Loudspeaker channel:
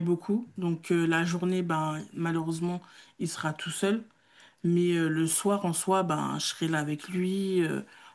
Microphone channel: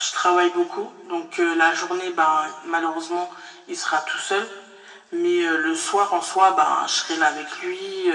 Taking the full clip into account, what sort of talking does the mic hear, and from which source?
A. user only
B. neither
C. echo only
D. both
C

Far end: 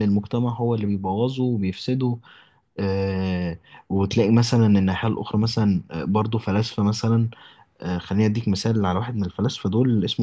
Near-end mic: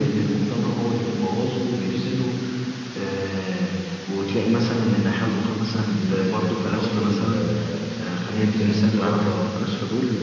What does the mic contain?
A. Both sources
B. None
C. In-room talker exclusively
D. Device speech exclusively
A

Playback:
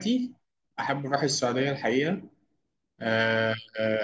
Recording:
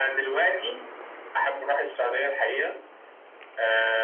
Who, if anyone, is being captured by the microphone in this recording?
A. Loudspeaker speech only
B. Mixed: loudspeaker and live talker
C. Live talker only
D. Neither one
A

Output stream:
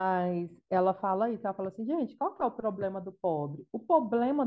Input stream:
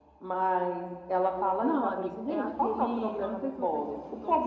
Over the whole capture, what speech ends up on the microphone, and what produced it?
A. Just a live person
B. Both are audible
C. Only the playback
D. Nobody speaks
B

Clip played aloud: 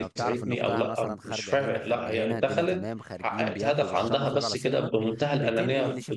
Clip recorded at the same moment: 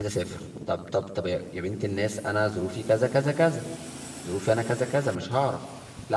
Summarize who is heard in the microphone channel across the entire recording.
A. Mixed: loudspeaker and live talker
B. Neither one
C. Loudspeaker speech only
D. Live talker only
D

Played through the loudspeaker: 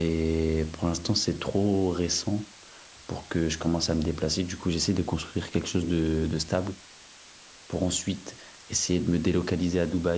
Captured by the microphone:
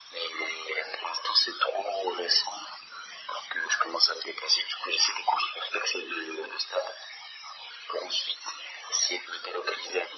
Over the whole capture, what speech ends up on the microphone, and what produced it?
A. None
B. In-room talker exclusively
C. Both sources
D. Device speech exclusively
D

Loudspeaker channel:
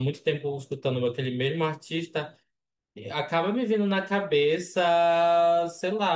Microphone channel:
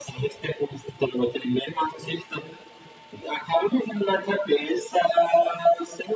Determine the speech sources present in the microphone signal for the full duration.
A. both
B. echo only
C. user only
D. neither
B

